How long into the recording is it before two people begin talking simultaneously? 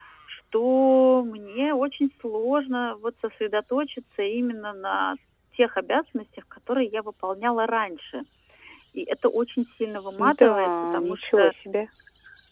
10 s

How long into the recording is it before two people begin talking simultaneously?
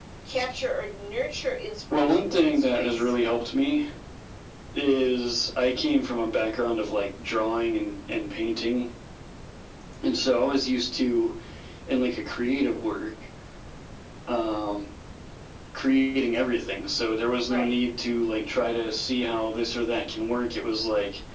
2 s

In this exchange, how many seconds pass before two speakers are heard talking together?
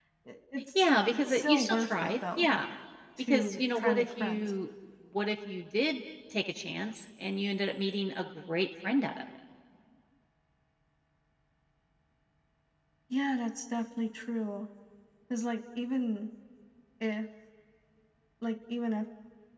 1 s

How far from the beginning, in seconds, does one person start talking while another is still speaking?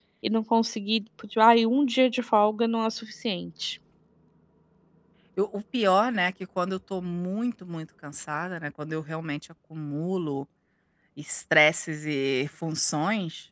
none

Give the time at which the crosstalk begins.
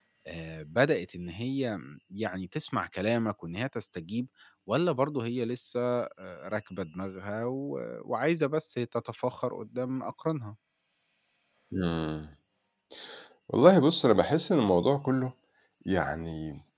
none

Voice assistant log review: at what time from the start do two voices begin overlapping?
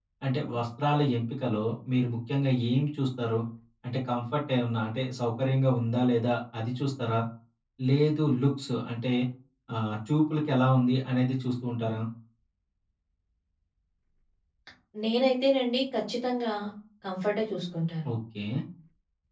none

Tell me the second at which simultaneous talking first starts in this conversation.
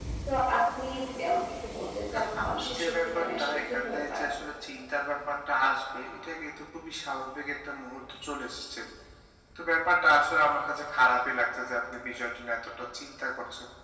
2 s

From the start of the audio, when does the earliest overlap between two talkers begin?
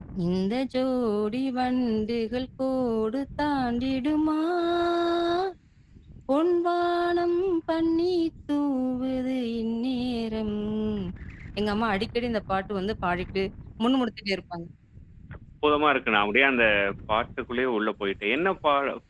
none

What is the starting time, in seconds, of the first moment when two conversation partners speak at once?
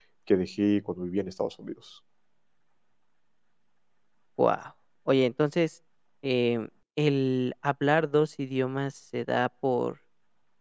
none

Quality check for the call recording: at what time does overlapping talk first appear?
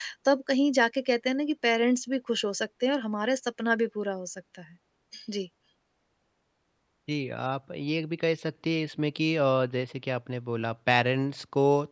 none

